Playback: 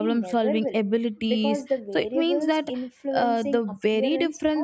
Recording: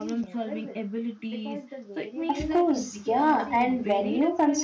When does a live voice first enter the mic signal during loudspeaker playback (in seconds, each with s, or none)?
2.3 s